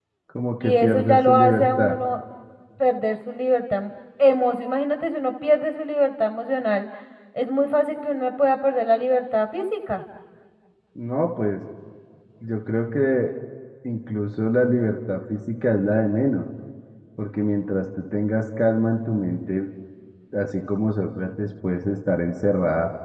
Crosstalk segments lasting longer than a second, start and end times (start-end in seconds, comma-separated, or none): 0.6-2.0